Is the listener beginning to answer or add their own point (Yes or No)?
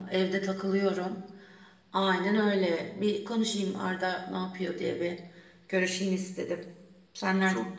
Yes